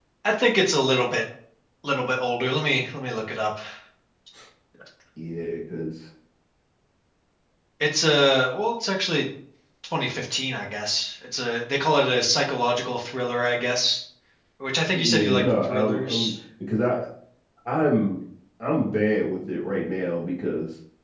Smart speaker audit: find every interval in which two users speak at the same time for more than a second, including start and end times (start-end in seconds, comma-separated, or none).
14.9-16.3